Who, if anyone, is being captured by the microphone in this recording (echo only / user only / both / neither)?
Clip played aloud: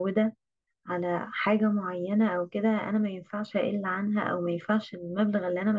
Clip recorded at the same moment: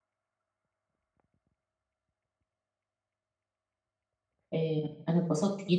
user only